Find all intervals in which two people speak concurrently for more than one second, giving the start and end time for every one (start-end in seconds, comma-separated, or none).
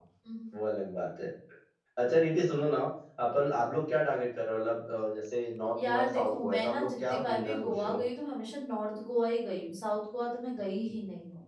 5.8-8.0